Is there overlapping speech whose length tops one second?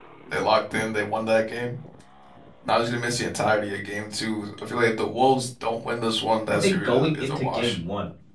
Yes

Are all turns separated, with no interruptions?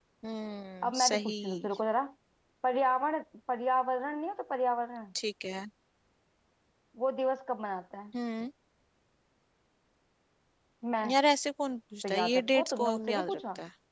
No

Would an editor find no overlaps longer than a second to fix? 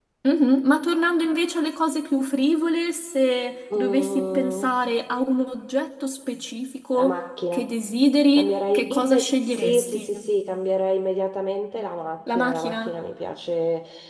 No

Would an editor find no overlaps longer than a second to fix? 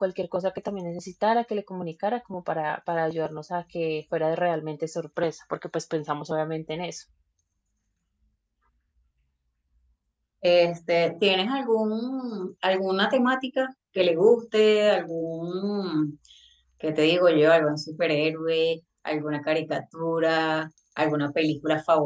Yes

